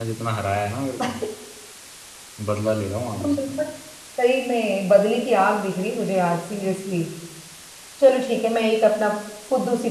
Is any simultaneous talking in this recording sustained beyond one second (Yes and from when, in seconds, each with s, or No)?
No